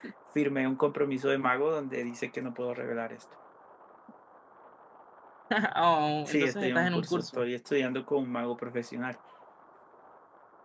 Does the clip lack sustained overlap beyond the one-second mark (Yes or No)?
No